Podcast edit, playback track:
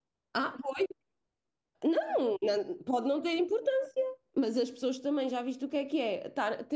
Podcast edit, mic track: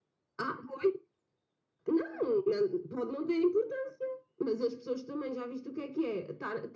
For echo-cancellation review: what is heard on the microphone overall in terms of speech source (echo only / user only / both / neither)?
echo only